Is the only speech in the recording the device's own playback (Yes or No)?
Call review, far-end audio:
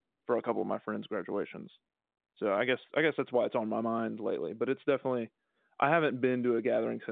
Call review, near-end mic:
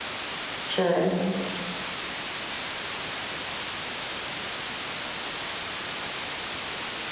No